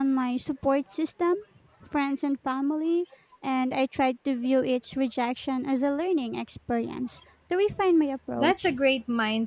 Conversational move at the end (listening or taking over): taking over